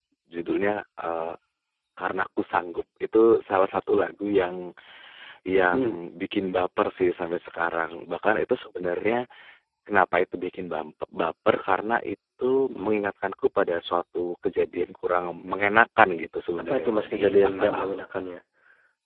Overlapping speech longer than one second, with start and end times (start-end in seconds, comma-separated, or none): 16.6-18.0